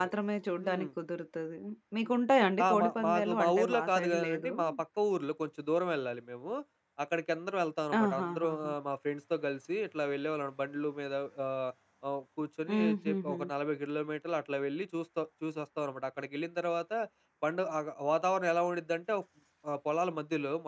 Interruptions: present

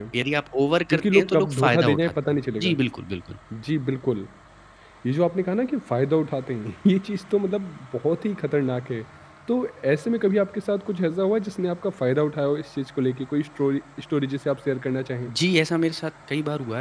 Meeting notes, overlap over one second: present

